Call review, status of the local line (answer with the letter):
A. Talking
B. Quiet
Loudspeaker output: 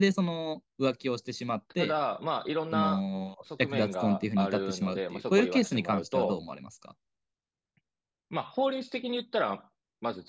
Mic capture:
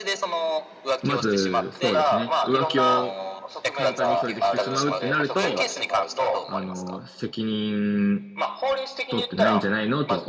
A